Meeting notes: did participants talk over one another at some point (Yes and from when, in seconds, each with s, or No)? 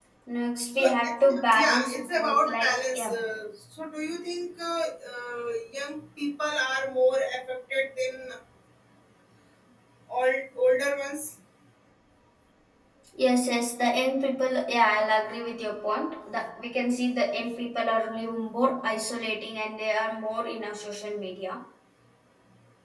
Yes, from 0.8 s